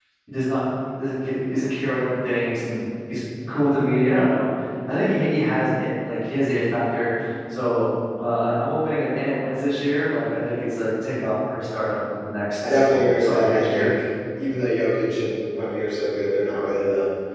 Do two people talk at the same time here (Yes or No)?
Yes